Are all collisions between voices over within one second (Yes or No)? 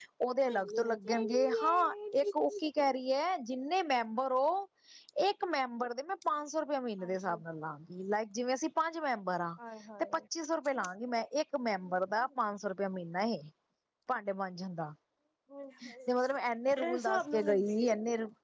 No